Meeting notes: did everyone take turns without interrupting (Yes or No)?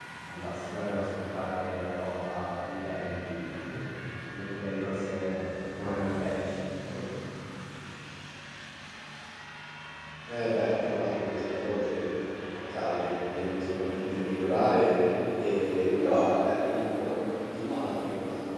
Yes